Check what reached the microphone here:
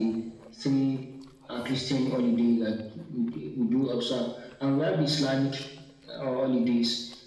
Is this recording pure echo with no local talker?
Yes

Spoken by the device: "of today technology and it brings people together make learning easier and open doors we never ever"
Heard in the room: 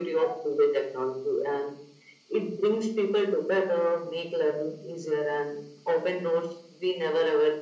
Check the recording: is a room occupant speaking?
No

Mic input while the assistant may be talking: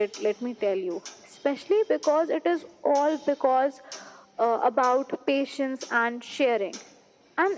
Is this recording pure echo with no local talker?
Yes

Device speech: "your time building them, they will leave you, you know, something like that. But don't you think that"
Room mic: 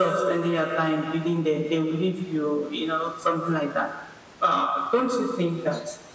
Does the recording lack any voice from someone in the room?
Yes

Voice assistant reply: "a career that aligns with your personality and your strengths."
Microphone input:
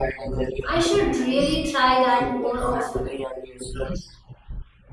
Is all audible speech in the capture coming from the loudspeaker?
No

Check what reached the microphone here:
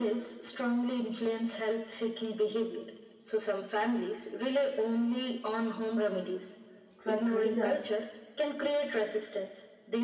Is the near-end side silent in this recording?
No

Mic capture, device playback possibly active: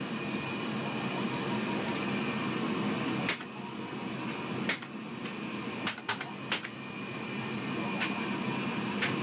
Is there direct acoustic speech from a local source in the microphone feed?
No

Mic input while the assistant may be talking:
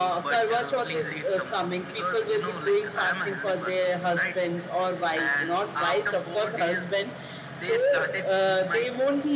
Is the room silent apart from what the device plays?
Yes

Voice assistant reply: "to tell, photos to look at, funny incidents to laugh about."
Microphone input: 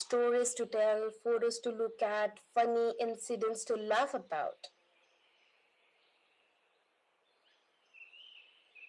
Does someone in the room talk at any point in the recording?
No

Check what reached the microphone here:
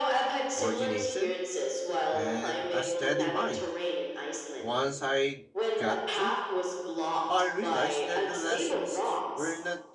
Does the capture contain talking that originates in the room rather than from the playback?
Yes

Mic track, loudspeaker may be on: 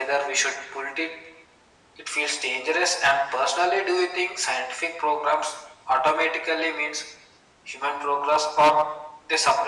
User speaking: No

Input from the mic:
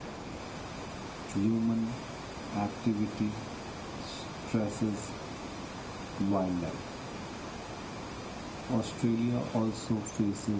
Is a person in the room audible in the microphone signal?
No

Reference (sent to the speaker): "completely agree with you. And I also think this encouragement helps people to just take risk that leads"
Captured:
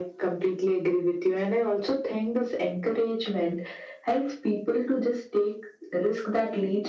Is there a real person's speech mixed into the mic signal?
No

